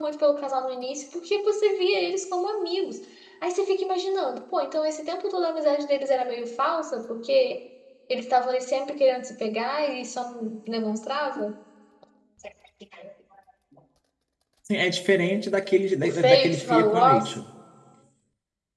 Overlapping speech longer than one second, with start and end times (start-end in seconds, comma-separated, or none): 16.0-17.4